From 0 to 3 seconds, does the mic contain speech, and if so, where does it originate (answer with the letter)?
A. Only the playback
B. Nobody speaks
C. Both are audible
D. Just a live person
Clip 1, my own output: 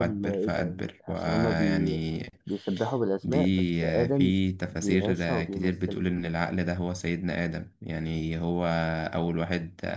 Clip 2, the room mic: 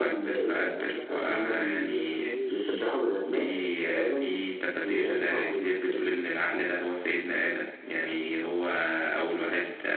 C